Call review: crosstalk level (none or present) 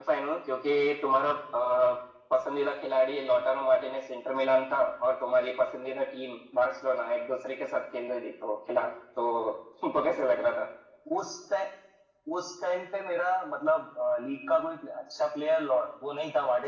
none